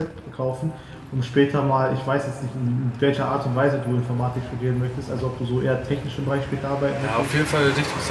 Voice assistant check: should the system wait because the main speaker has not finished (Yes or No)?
No